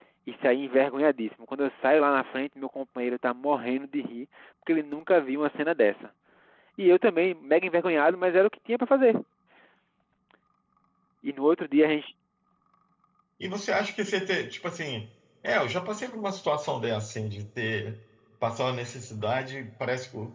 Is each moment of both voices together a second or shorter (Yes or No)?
Yes